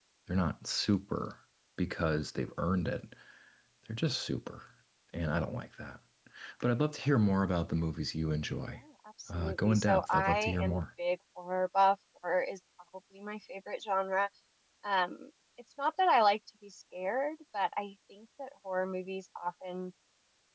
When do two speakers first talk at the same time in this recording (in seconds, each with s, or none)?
9.4 s